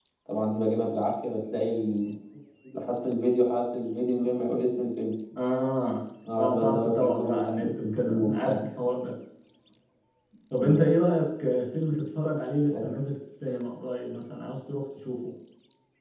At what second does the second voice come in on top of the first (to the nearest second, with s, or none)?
6 s